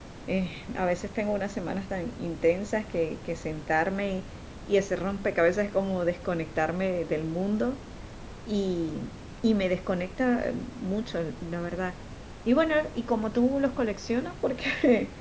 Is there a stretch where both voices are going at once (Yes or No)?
No